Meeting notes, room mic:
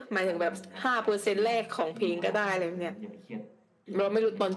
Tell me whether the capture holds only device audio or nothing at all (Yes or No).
No